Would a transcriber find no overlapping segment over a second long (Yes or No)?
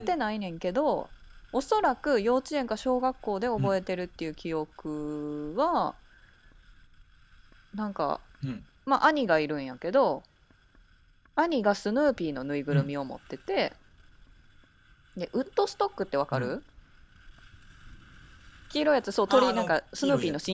No